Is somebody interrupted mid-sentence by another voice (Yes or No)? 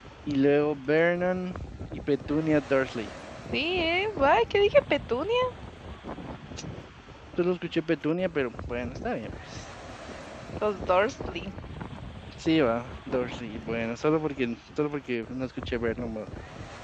No